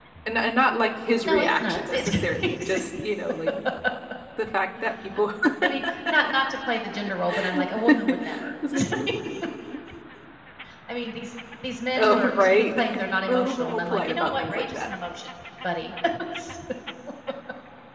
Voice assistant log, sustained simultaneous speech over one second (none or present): present